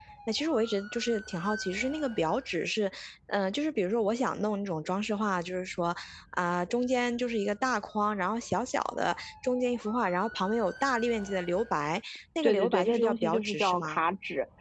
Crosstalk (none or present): present